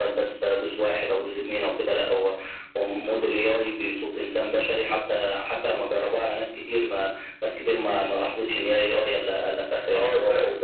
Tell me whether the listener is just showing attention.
No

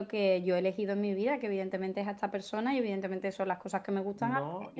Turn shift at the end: Yes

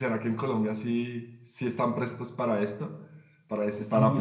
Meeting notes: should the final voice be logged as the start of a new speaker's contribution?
Yes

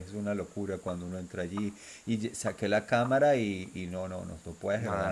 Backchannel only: No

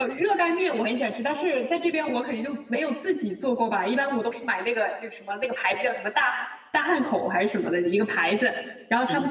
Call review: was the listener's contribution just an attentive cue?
Yes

